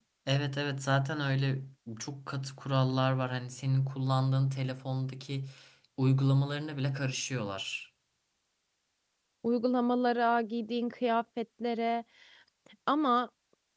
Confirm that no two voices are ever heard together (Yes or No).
Yes